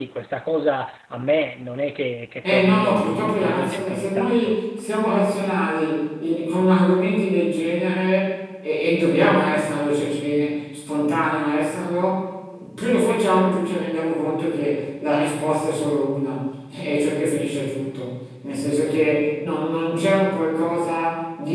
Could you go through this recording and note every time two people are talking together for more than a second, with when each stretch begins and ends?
2.4-4.6

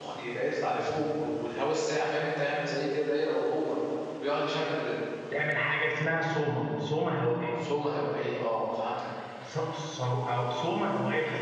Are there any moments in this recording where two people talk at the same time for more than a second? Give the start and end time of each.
none

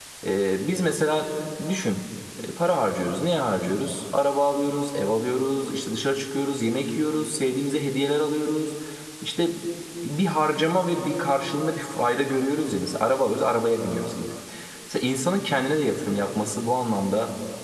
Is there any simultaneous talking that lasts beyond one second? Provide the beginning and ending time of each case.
none

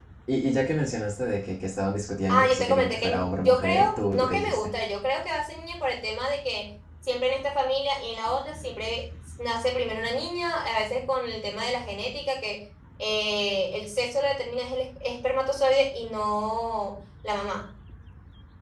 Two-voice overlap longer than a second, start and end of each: 2.3-4.7

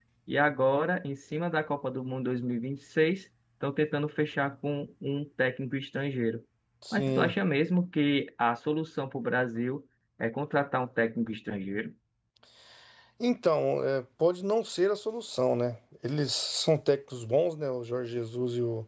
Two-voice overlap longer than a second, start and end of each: none

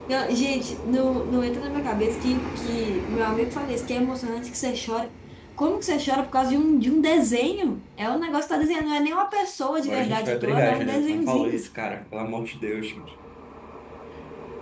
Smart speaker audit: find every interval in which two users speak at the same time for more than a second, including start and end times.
9.8-11.7

